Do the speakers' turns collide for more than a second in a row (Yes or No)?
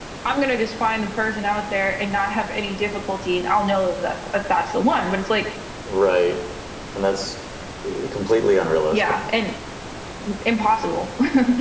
No